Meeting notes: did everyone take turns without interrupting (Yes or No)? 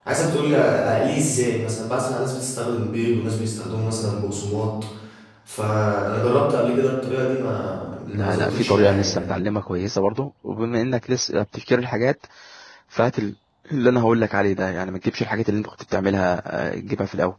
No